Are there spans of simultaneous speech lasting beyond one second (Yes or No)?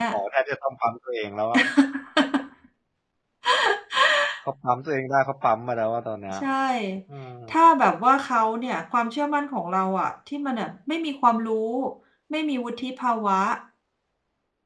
No